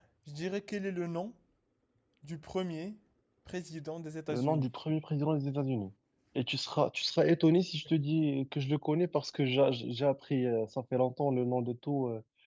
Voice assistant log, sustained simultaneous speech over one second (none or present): none